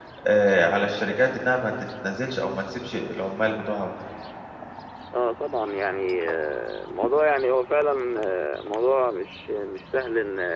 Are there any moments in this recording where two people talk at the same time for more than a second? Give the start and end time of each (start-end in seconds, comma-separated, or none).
none